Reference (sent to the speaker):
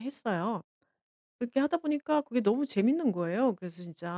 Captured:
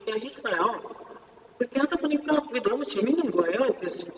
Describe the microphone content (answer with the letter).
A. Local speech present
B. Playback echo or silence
B